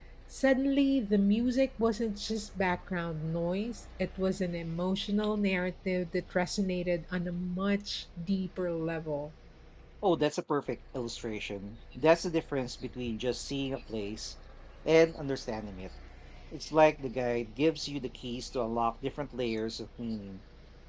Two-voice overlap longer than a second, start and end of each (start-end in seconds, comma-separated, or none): none